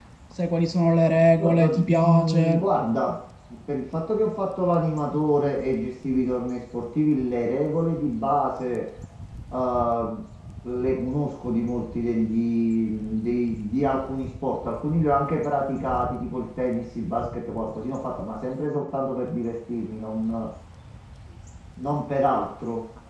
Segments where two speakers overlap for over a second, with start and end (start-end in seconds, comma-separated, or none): 1.4-2.6